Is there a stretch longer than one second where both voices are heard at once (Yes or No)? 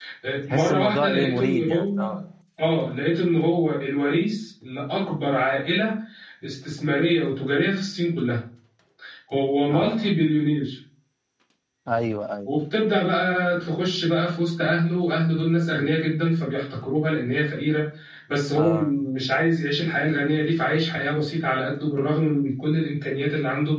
Yes